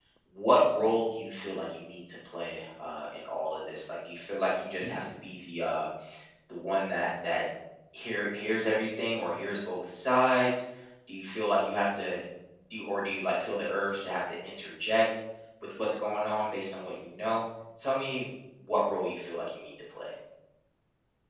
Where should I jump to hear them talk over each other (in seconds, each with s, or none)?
none